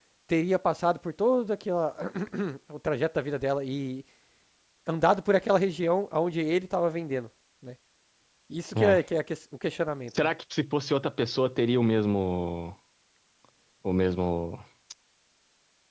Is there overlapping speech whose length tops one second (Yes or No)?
No